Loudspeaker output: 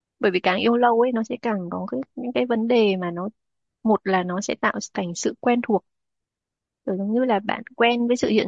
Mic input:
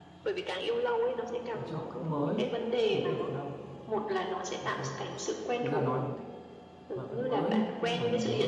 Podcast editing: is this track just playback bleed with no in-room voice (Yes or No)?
No